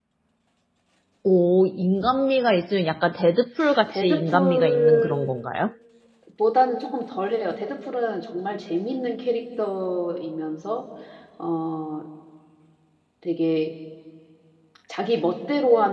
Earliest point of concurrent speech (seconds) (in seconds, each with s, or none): 3.9 s